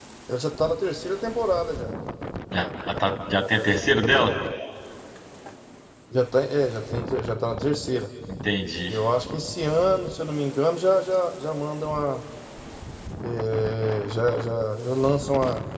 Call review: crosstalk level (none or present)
none